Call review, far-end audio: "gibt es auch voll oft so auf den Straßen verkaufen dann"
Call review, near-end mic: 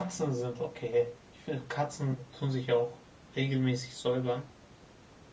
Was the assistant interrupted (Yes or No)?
Yes